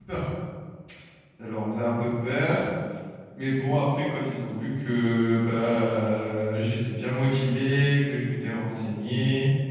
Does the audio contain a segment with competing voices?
No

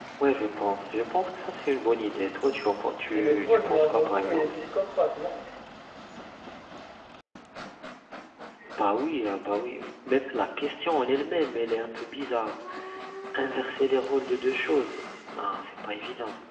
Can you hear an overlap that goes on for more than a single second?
Yes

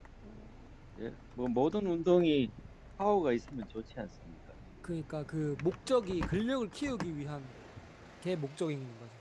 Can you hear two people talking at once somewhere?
No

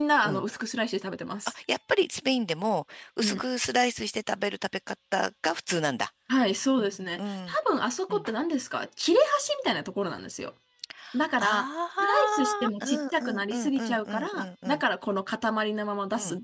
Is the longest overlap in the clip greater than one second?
Yes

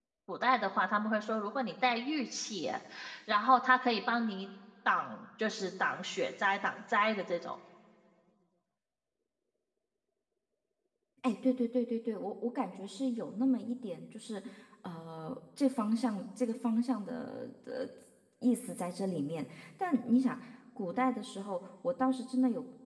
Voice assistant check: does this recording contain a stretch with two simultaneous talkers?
No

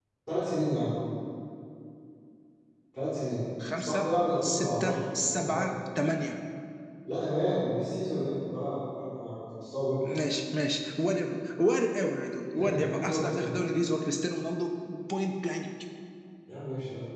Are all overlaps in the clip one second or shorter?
No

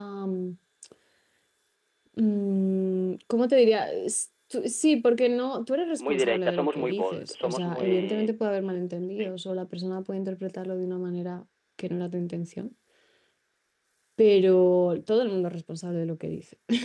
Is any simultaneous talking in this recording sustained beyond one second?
Yes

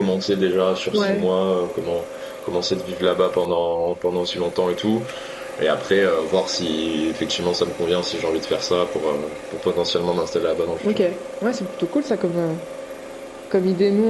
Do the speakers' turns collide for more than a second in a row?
No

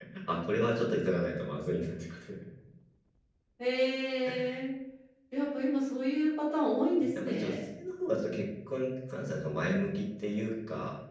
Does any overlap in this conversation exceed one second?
No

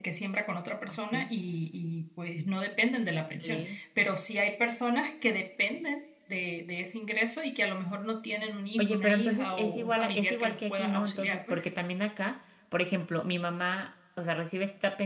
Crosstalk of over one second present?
Yes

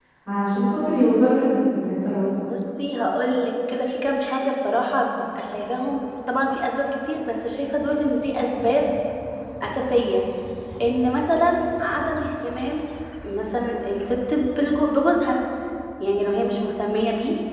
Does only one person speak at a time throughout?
Yes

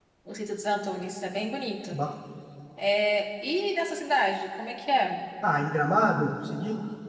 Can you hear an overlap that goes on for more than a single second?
No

